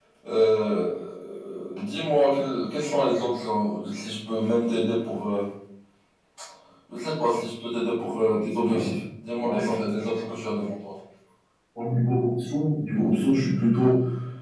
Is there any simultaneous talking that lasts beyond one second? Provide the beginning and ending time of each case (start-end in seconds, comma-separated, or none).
none